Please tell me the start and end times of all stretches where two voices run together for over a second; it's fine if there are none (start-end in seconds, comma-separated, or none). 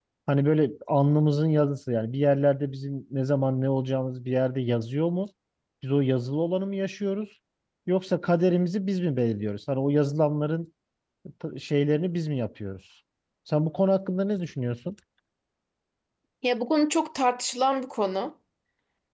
none